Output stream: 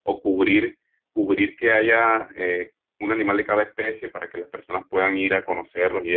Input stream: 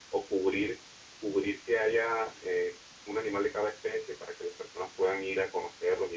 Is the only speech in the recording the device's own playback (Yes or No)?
Yes